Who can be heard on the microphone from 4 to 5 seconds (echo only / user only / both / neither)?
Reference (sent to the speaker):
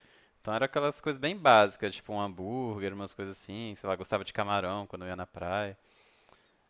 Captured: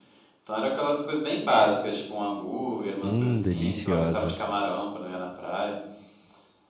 both